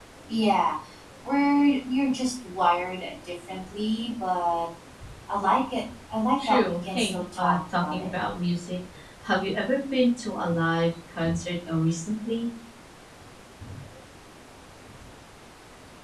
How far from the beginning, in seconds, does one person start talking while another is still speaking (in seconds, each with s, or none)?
6.4 s